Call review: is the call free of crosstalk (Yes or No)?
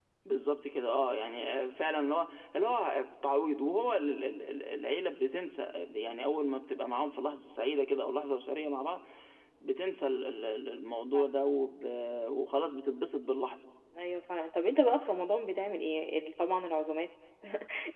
Yes